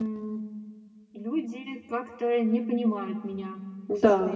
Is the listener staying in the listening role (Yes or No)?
No